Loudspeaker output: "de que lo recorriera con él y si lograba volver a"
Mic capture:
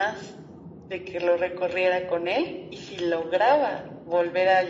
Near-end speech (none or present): none